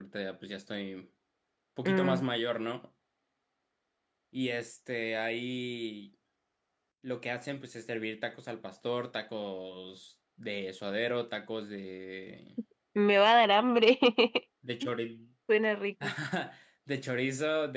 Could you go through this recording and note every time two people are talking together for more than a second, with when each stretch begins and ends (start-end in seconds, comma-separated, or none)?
none